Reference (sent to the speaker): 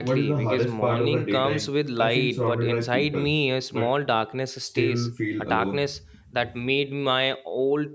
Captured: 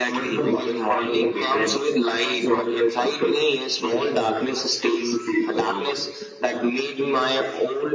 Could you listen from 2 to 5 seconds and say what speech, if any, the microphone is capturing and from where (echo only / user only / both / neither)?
echo only